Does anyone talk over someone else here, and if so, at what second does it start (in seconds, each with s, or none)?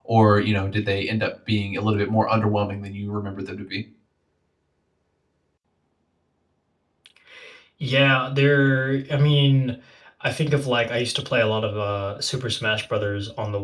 none